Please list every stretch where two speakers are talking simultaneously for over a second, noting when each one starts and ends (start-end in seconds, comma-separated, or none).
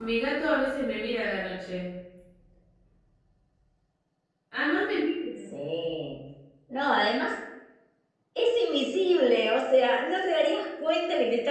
none